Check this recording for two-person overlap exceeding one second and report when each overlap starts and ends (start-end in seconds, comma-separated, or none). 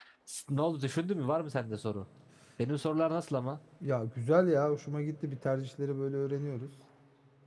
none